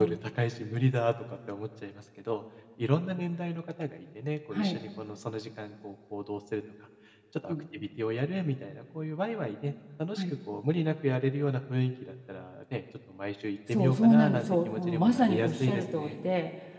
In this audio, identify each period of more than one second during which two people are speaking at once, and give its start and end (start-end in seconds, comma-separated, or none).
13.7-16.2